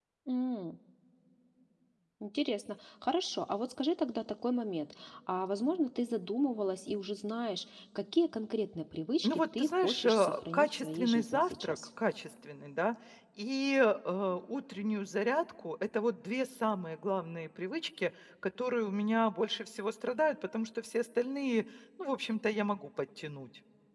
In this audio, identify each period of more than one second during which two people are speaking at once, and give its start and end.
9.2-11.8

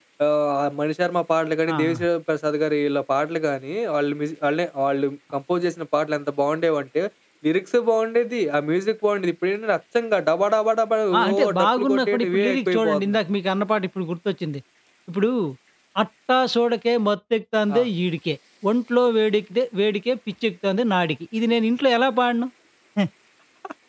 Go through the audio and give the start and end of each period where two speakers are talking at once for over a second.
11.2-13.2

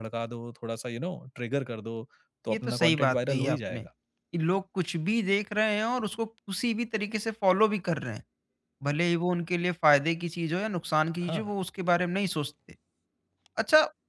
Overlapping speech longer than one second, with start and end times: 2.5-3.8

